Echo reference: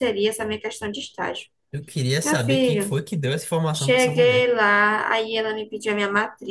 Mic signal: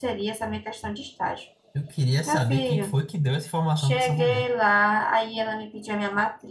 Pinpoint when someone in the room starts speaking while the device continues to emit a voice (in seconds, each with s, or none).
none